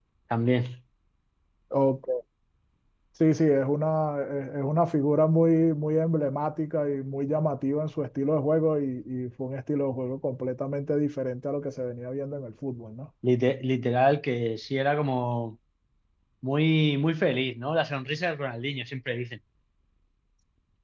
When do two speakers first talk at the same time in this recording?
none

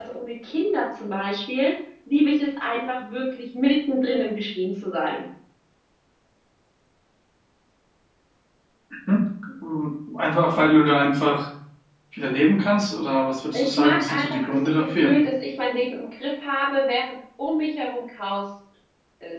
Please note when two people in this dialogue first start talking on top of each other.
14 s

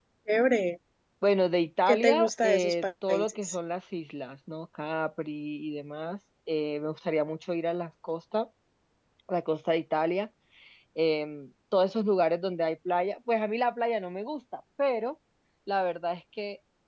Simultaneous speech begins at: 2 s

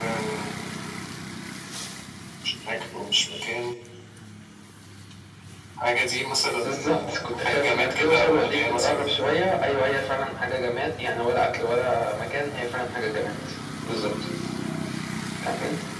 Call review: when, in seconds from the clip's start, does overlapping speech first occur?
7 s

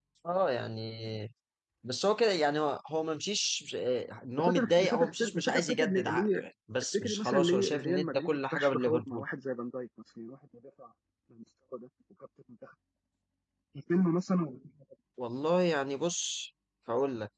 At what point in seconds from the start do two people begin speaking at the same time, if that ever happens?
4 s

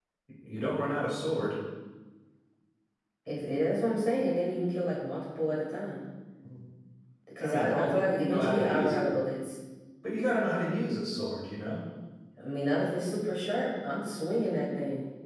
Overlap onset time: 7 s

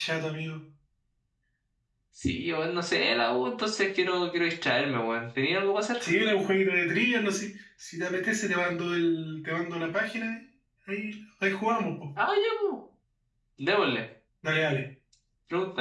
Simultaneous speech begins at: none

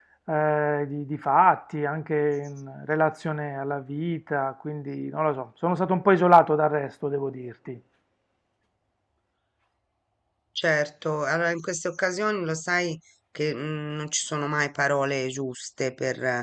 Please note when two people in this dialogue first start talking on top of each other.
none

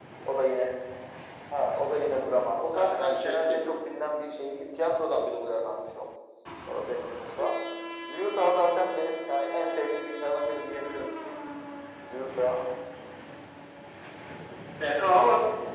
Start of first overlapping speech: 3 s

